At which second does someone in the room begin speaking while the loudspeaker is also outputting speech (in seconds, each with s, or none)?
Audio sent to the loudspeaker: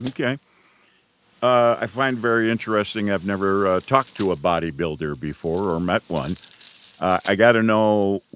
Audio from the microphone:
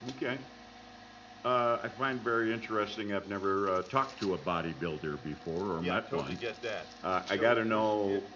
5.8 s